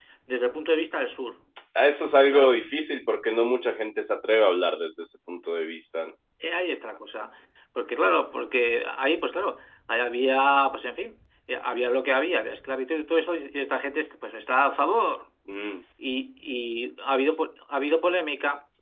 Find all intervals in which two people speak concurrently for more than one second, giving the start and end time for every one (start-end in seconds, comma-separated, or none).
none